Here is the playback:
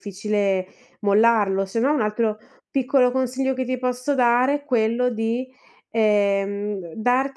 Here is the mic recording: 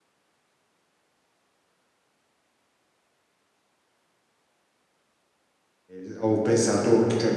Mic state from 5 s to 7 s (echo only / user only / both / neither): user only